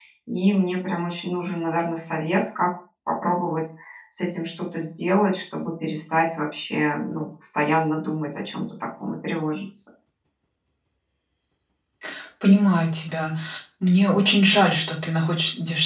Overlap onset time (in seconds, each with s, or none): none